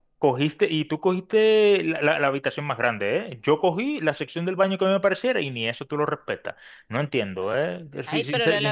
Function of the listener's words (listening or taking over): taking over